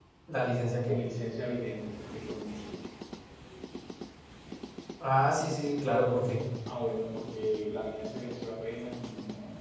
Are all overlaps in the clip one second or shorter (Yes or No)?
Yes